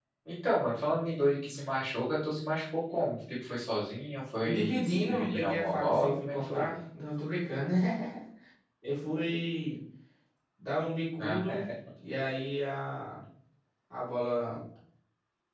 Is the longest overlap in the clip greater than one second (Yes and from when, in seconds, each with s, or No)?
Yes, from 4.4 s